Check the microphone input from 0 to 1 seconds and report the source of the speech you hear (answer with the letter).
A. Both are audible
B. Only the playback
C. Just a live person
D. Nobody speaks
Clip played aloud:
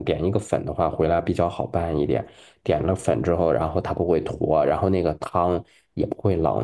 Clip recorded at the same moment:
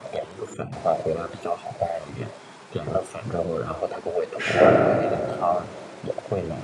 B